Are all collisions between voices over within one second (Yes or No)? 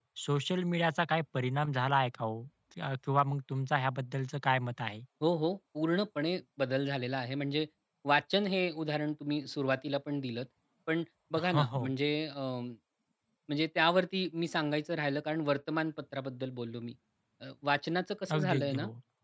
Yes